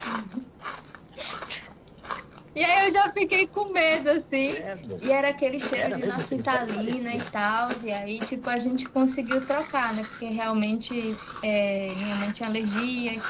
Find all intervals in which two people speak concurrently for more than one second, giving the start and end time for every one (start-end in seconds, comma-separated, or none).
5.7-7.3